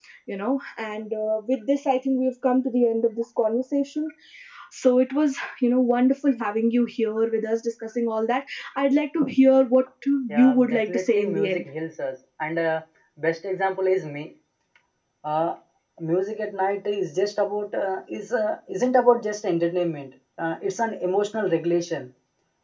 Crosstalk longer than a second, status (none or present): present